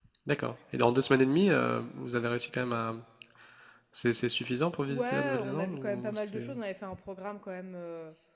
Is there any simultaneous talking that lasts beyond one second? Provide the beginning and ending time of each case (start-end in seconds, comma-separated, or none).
4.9-6.5